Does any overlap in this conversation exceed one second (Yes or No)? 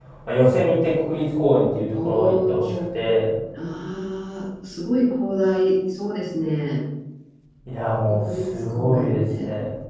Yes